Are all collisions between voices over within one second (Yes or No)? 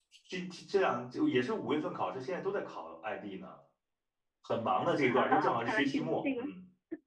No